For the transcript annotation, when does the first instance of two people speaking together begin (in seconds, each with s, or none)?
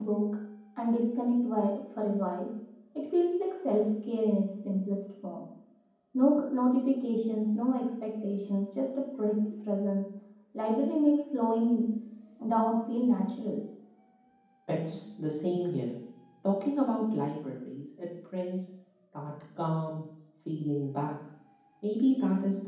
none